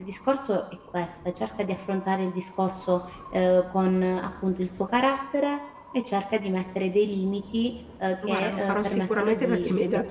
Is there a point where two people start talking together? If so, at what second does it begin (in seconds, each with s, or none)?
8.2 s